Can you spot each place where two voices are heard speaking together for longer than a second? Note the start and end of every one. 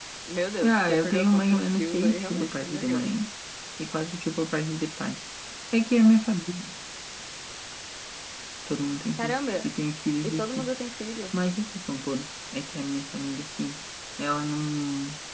0.6-3.1

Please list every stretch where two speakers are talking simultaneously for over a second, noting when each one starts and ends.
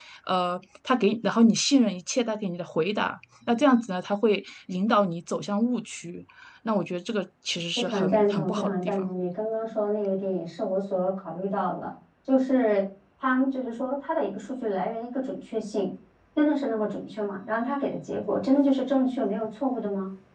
7.8-9.1

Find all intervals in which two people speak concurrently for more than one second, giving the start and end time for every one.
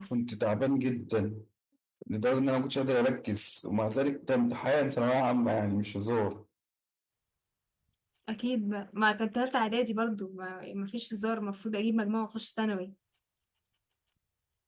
none

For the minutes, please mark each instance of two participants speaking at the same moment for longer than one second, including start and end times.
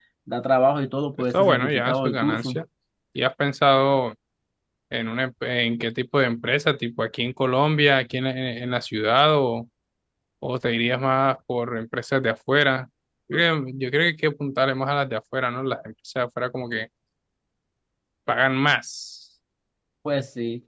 1.3-2.6

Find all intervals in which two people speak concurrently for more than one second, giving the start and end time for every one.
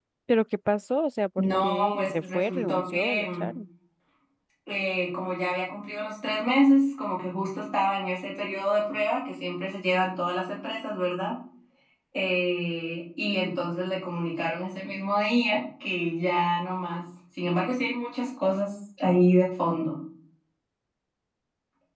1.4-3.5

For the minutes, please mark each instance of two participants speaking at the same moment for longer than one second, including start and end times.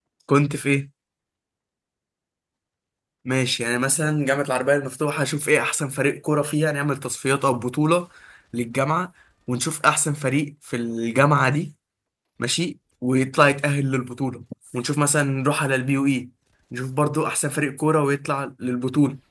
none

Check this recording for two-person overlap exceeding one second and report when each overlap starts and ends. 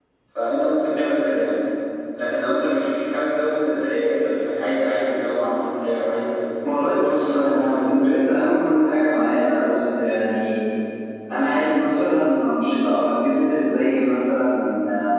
6.8-8.1

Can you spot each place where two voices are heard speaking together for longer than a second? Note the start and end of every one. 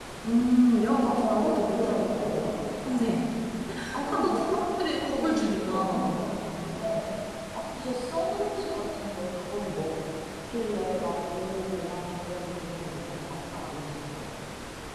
1.2-2.5, 4.1-6.1

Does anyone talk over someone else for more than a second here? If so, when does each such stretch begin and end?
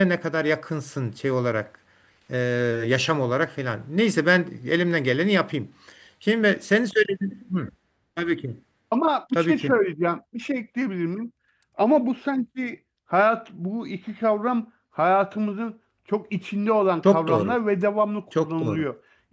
none

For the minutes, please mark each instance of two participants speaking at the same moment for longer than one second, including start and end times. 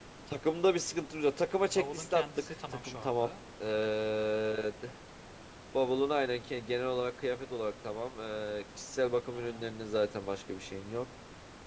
1.8-3.3

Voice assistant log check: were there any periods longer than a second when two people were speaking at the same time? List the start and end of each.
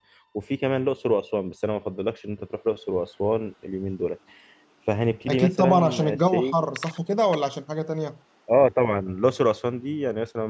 5.3-6.5

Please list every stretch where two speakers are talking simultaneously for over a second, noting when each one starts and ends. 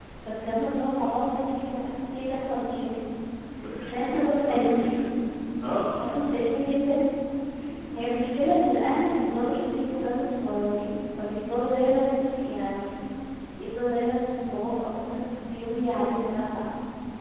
3.8-5.1

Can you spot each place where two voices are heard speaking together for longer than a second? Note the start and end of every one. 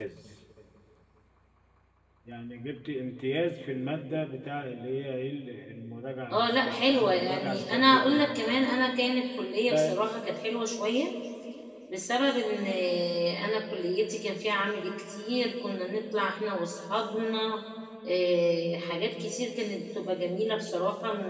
6.3-8.4

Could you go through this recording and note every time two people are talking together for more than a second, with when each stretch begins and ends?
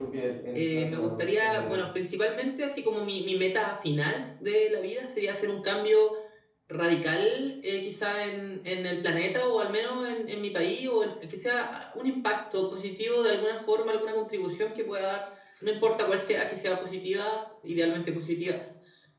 0.5-1.9

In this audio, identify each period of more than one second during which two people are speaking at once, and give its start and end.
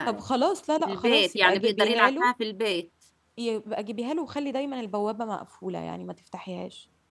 0.8-2.3

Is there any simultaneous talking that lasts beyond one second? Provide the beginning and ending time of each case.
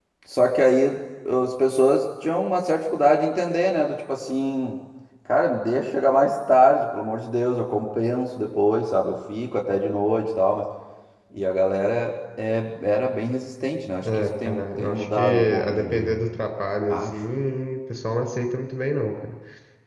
14.0-16.2

